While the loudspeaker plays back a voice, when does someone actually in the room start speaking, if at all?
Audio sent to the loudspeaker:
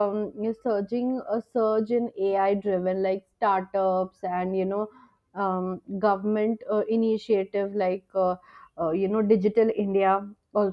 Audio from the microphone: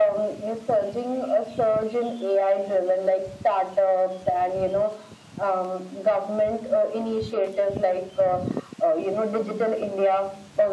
none

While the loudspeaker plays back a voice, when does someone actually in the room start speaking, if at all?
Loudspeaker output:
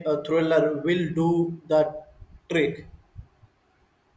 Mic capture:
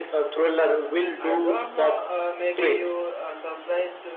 1.2 s

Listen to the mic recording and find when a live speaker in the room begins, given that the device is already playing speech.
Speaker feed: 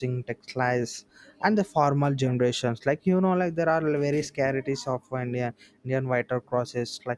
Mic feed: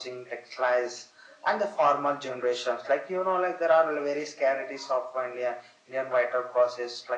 none

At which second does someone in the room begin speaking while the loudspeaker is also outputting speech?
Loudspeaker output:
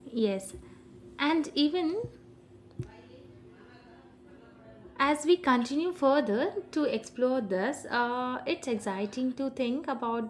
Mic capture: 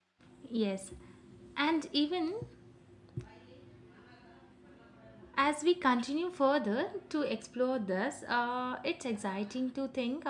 none

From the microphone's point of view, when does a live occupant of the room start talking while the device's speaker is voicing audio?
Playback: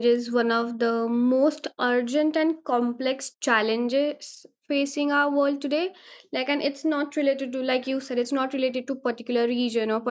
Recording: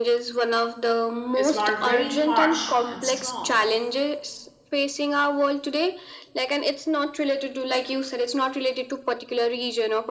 1.3 s

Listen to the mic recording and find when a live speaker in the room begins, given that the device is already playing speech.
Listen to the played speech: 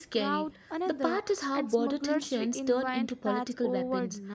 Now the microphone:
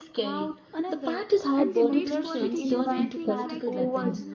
1.6 s

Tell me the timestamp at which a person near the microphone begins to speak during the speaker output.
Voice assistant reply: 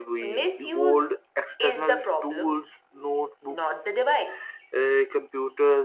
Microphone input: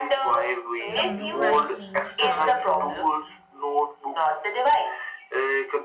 0.9 s

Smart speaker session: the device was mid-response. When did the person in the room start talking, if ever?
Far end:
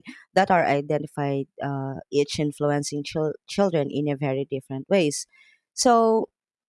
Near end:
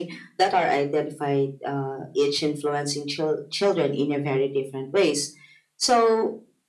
none

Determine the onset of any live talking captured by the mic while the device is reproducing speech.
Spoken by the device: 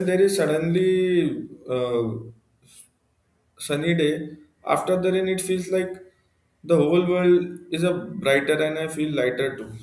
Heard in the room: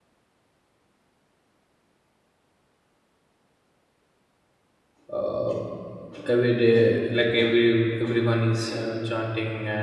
5.1 s

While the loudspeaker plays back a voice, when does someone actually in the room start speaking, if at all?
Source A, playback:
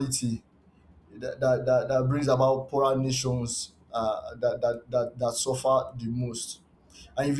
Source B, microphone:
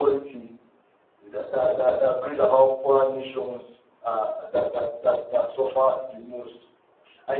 none

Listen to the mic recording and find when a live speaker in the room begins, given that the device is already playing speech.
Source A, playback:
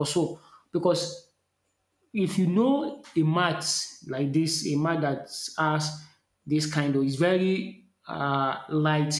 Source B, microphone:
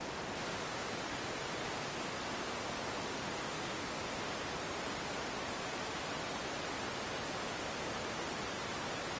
none

